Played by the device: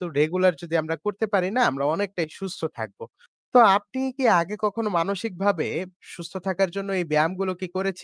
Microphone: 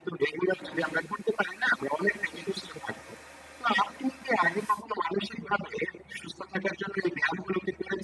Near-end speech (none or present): none